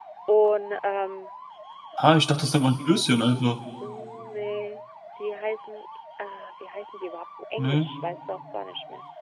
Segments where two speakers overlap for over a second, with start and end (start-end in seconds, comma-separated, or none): none